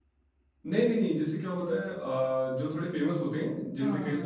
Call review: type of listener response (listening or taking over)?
listening